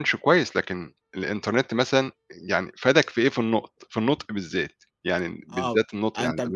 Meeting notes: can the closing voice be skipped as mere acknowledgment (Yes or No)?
No